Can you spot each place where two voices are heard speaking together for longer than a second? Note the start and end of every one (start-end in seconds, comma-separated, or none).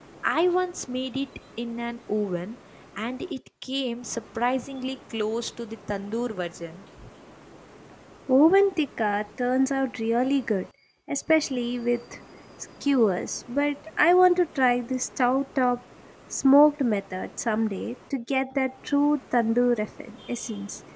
none